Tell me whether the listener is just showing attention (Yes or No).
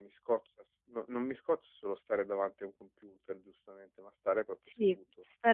No